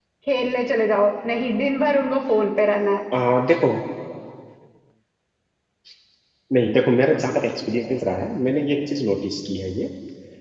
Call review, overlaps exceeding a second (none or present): none